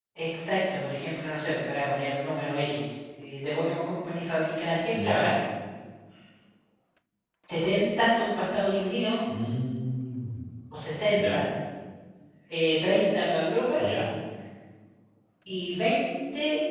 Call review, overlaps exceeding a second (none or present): none